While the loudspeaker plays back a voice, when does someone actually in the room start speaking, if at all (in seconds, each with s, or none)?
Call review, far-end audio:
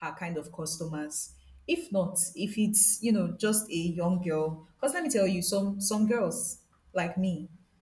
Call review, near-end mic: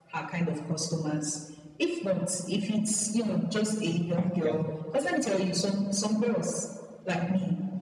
4.2 s